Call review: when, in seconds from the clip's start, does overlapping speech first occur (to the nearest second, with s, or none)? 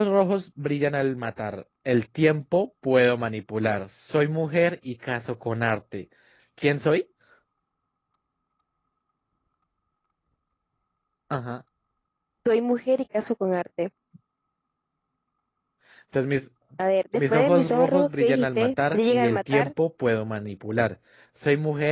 17 s